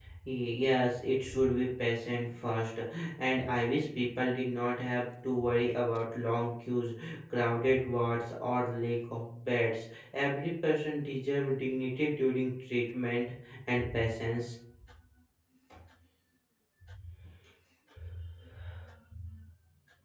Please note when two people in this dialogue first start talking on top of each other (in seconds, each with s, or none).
none